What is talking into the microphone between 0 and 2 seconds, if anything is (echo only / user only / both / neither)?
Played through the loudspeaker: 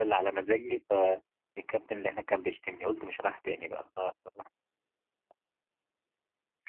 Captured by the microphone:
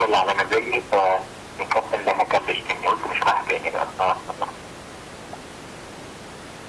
echo only